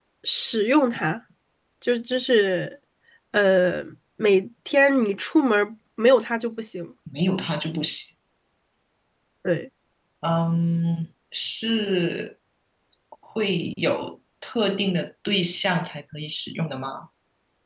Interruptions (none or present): none